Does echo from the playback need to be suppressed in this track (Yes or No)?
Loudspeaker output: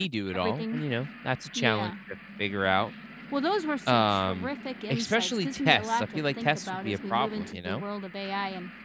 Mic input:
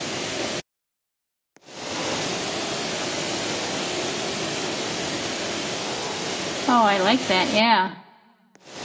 No